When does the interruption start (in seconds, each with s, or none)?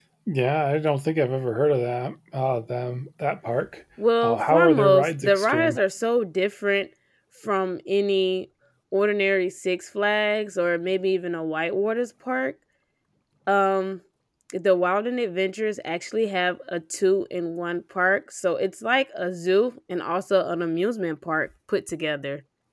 4.2 s